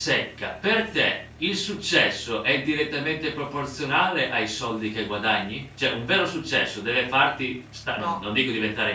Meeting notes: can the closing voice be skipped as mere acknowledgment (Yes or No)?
Yes